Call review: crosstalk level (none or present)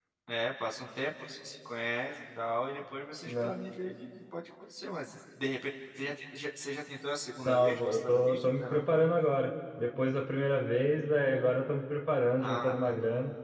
present